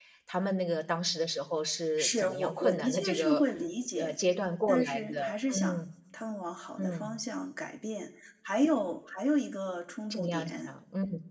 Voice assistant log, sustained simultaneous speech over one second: present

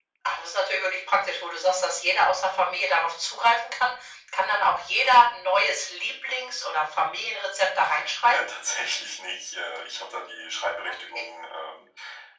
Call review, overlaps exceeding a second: none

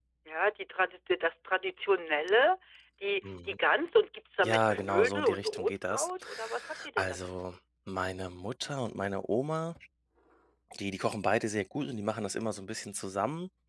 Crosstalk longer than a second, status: present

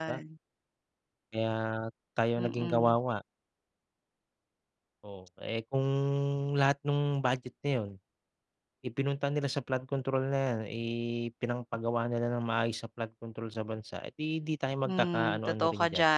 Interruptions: present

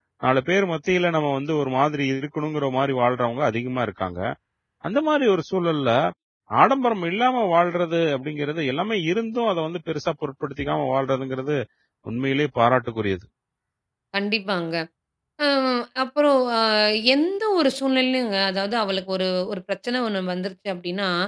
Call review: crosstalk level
none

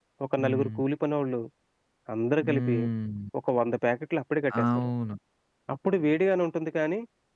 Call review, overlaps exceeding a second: none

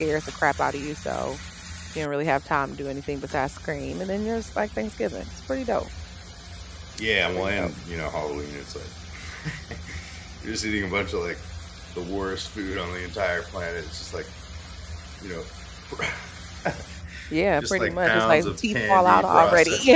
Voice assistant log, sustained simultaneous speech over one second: present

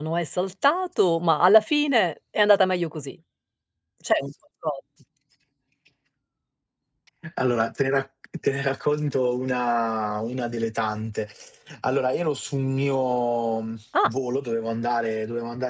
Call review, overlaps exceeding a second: none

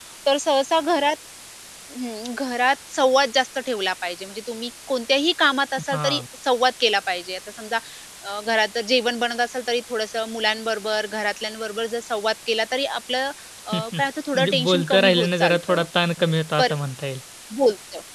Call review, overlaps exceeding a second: present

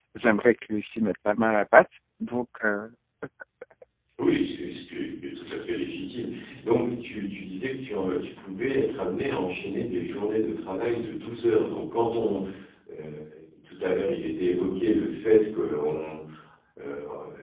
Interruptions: none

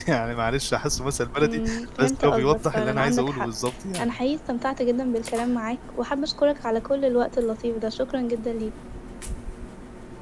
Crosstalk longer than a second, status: present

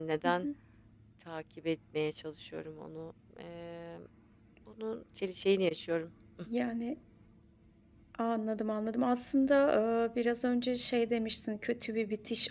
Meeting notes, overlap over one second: none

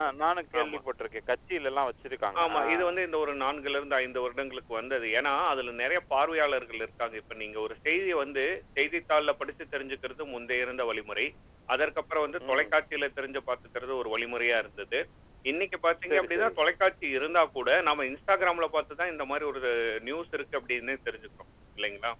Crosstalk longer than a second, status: none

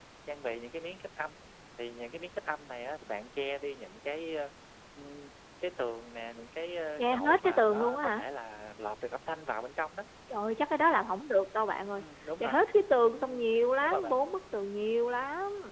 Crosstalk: present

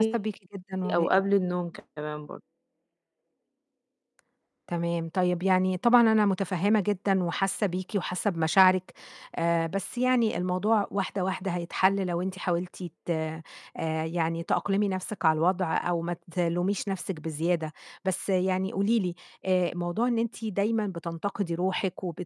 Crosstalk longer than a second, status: none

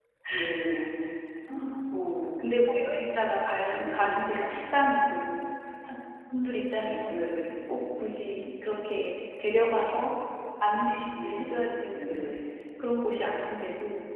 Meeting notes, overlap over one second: none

